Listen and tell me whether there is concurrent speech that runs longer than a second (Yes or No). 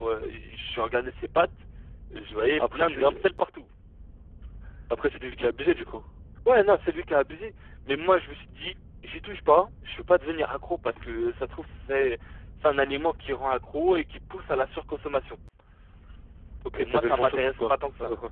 Yes